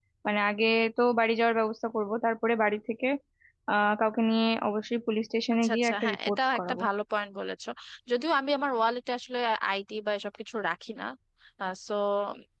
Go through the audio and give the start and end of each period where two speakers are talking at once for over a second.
5.5-6.8

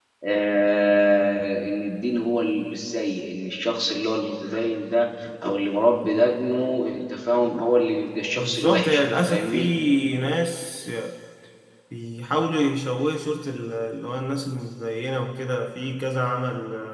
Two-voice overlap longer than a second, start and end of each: 8.4-9.7

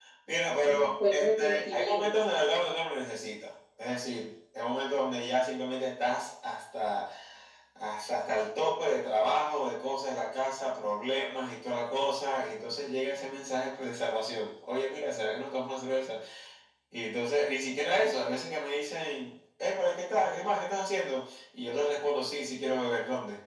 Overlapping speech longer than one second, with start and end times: 0.6-2.1

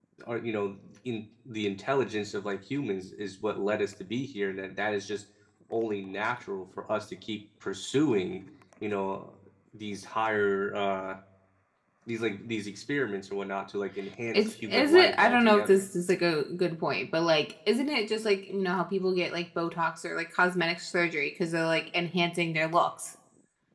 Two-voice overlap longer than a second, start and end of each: 14.3-15.9

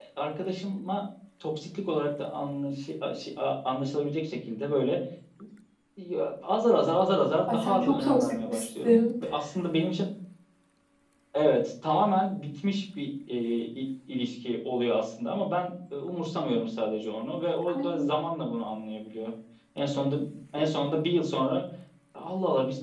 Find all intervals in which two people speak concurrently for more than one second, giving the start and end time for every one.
7.5-9.1

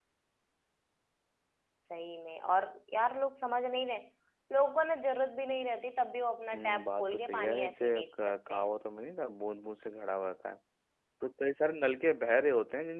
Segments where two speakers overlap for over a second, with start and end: 6.5-8.7

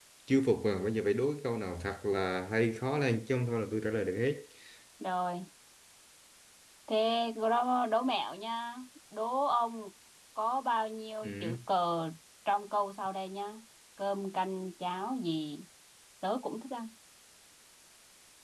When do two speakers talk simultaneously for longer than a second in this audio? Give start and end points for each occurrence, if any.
none

